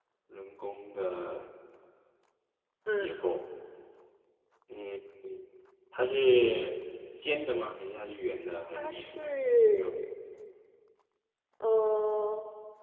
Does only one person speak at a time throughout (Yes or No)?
No